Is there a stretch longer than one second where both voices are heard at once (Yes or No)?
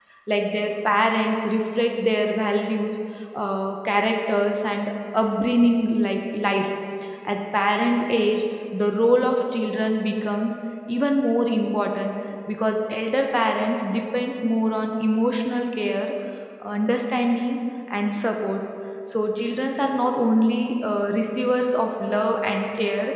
No